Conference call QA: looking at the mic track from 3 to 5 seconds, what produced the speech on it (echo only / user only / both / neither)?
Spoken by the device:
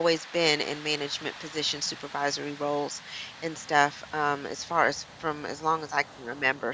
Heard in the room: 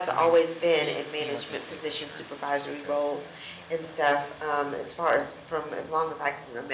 both